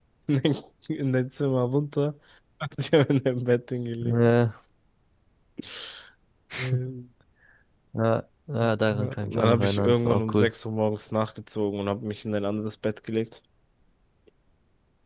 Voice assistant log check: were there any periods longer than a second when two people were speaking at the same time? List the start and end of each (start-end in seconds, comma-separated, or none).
8.9-10.5